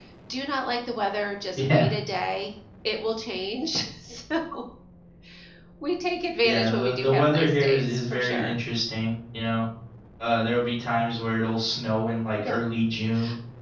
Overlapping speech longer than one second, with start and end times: 6.4-8.6

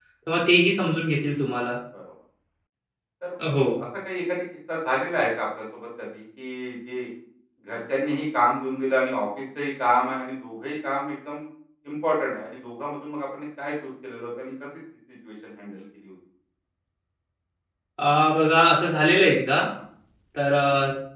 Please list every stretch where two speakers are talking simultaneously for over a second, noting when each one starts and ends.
none

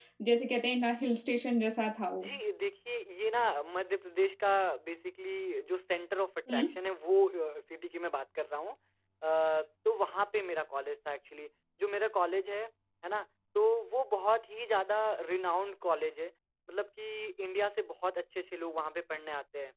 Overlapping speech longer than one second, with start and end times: none

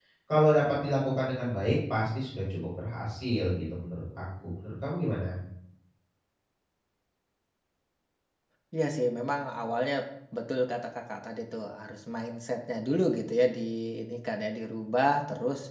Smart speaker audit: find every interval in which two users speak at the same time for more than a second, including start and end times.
none

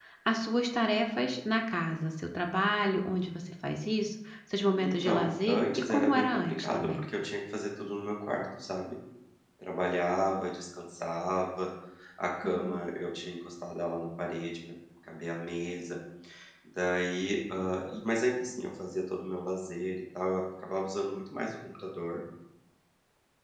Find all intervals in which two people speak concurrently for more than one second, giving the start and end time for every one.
4.8-7.0

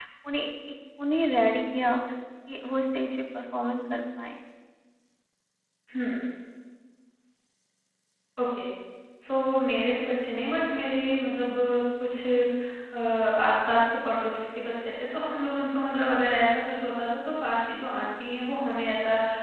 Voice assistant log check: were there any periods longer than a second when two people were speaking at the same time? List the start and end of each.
none

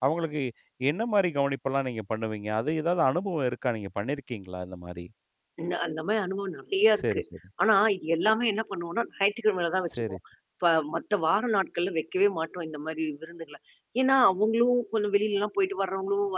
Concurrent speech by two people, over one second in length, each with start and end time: none

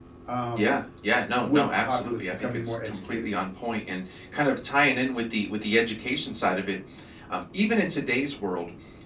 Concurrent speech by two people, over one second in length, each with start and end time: 1.4-3.3

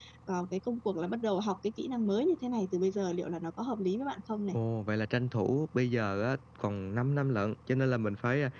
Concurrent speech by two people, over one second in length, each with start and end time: none

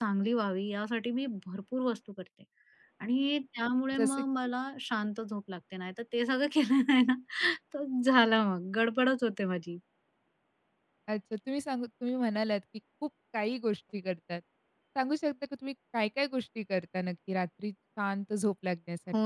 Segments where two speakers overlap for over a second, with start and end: none

